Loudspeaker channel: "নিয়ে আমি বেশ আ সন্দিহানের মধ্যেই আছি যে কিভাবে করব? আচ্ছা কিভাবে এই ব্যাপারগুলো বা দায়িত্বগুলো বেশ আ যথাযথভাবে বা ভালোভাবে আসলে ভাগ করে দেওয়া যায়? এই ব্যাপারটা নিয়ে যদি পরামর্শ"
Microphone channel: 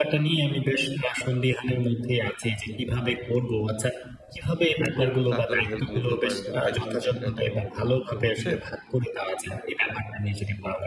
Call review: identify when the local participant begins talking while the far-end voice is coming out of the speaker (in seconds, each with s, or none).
4.9 s